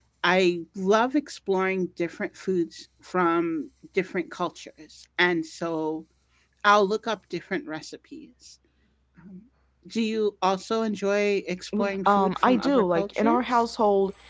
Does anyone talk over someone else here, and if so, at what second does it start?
11.7 s

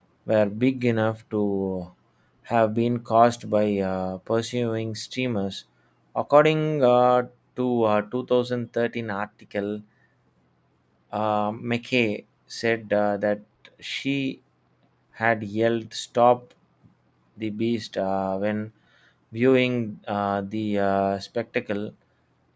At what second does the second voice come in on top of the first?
none

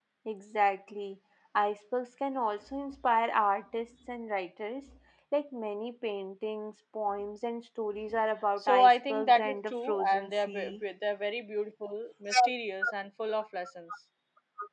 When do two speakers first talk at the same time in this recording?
8.6 s

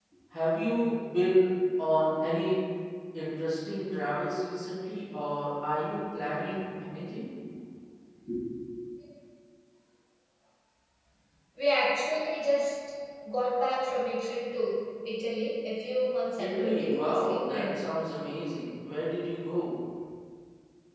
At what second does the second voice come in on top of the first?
16.4 s

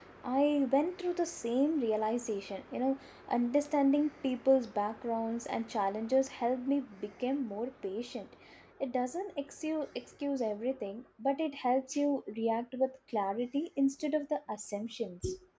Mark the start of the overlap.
none

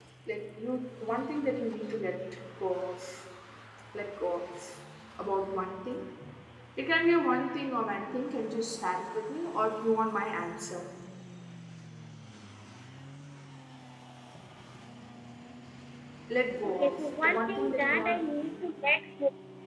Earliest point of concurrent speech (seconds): 16.6 s

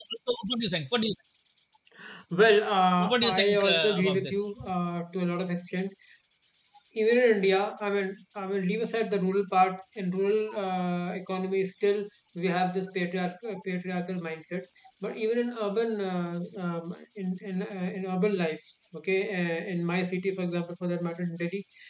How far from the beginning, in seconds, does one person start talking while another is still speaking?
3.0 s

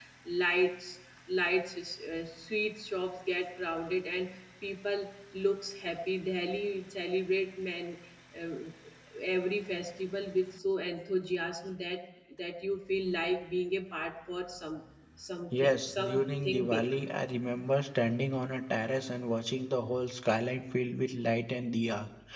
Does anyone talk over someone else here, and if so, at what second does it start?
15.5 s

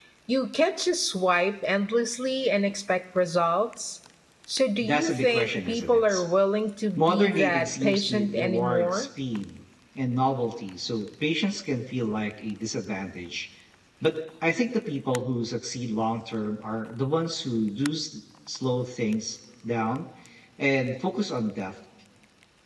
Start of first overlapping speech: 4.8 s

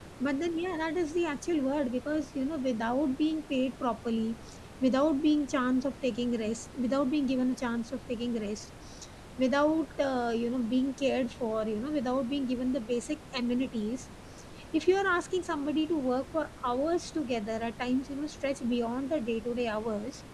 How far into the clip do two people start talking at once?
none

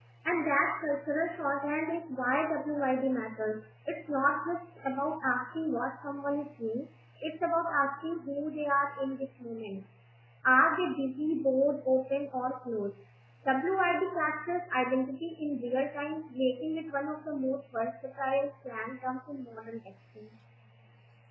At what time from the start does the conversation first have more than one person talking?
none

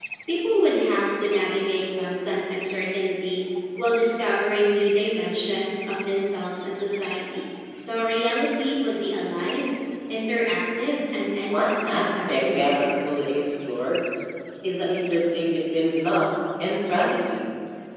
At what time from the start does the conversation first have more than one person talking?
11.5 s

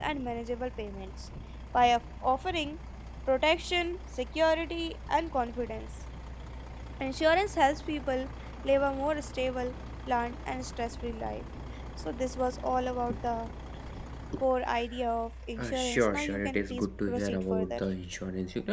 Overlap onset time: 15.6 s

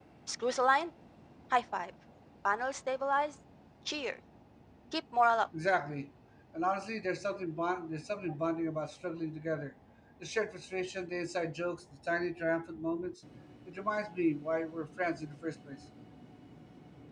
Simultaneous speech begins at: none

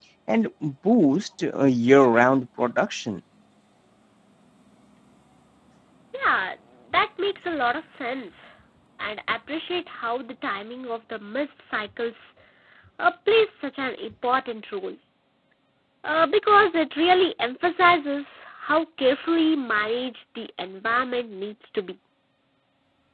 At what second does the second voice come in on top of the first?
none

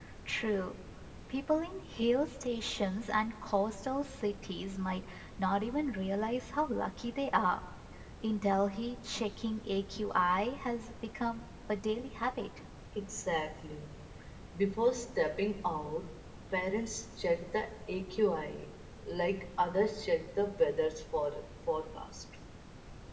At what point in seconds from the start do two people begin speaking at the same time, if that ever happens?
none

